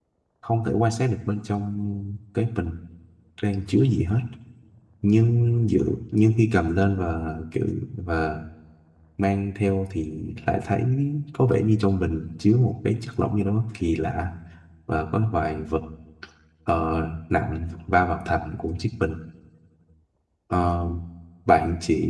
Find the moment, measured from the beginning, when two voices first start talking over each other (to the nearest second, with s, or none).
none